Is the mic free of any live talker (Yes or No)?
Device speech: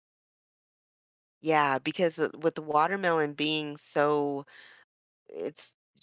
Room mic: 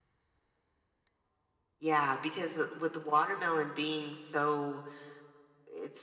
Yes